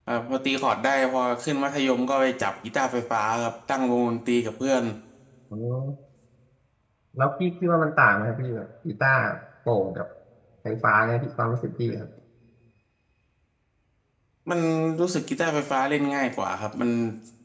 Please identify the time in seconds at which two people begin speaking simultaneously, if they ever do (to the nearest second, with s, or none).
none